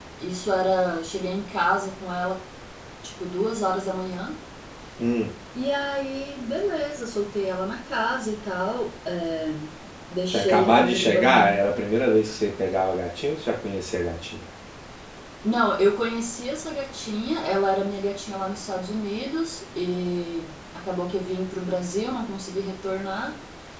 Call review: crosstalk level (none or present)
present